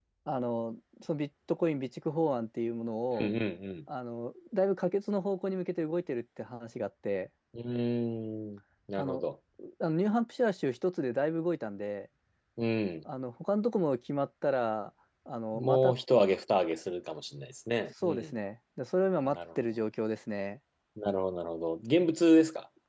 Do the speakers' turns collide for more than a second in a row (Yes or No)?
No